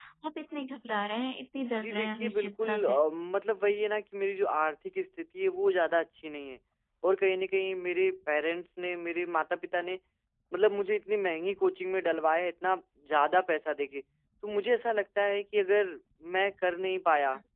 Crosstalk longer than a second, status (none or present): present